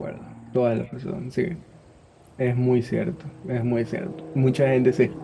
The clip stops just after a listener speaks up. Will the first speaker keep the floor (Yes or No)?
Yes